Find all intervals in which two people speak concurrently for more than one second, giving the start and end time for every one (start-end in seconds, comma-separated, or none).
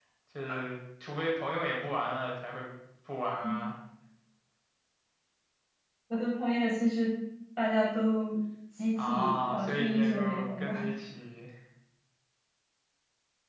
9.0-10.7